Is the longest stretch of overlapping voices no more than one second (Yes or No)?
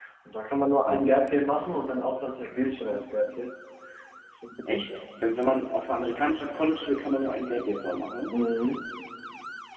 Yes